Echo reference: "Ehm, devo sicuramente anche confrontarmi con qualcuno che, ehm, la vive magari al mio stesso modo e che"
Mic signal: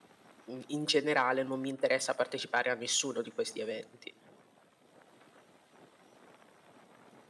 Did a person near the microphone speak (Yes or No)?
Yes